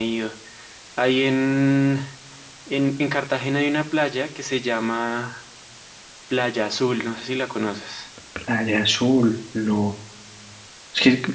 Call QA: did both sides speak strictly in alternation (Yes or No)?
Yes